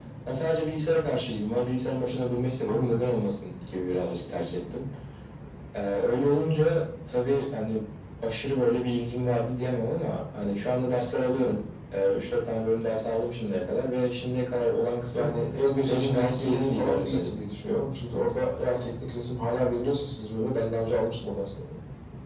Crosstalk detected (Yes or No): Yes